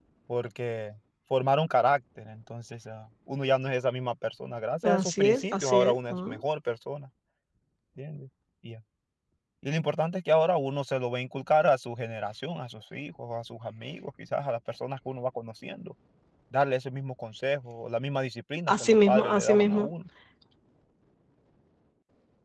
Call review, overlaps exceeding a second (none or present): present